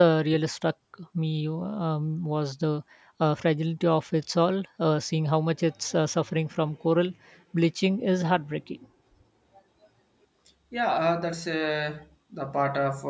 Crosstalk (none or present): none